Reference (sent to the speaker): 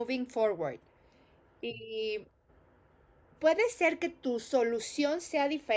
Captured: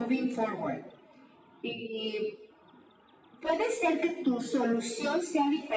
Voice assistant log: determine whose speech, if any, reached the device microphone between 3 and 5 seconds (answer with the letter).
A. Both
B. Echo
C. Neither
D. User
B